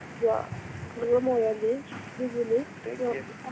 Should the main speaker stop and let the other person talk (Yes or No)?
No